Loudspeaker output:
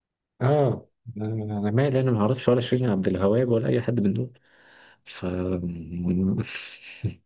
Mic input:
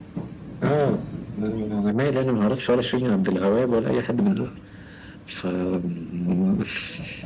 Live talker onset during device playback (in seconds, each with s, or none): none